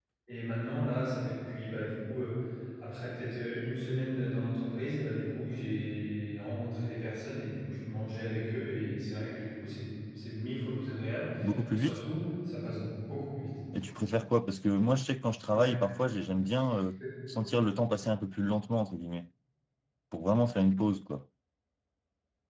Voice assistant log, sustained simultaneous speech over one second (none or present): none